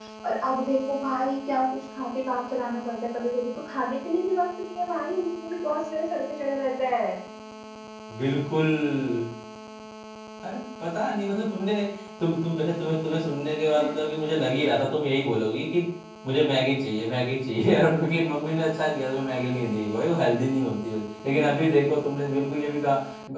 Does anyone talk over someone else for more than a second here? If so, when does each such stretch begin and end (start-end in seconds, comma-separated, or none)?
none